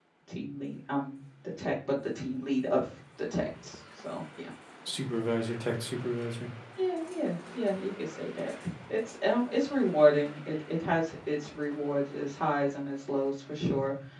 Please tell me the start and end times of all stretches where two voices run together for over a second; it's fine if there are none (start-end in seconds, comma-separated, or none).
none